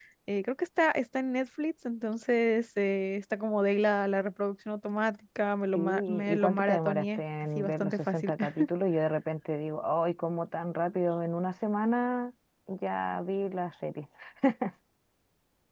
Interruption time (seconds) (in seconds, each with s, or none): 5.8 s